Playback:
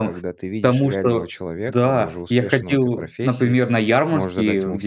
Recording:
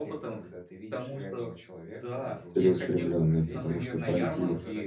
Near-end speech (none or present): present